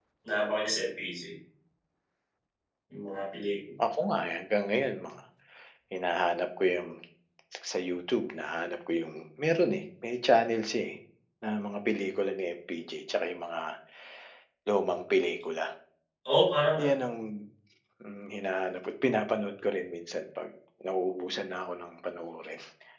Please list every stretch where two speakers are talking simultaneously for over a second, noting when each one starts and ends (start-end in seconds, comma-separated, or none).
none